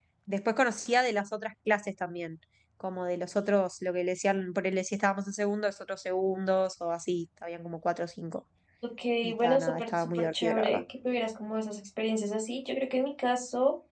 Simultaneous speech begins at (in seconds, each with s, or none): 9.2 s